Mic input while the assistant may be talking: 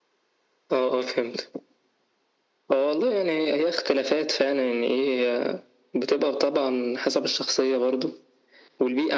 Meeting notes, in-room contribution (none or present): none